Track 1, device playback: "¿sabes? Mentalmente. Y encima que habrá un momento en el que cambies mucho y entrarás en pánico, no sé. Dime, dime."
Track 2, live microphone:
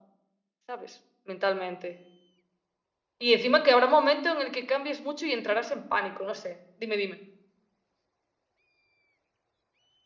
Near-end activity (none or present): none